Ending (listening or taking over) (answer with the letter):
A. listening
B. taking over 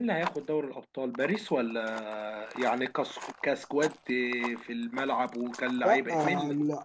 B